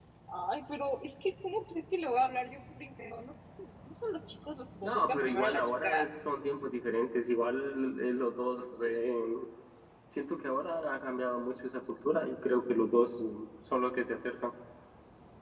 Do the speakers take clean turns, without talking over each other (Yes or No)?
No